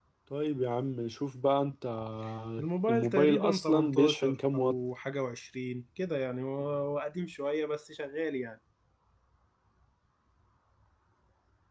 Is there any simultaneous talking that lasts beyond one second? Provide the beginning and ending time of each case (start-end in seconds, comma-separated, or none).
2.9-4.7